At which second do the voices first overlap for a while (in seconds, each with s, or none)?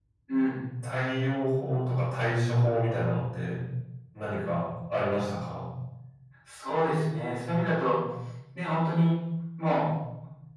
none